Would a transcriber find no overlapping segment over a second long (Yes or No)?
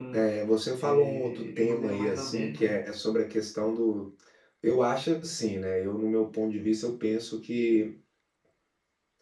No